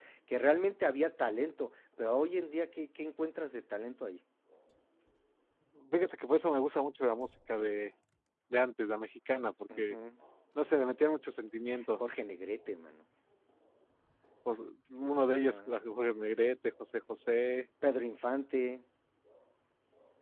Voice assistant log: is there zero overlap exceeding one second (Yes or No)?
Yes